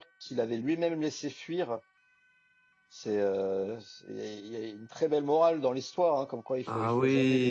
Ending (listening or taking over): listening